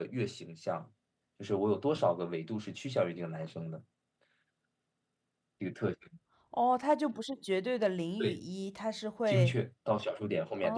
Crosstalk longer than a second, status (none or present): none